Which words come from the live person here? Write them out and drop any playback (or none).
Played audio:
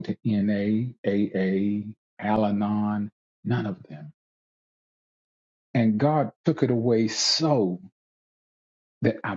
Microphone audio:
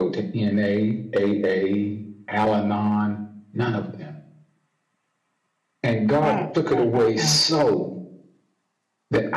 Mm, mm, mm, mm.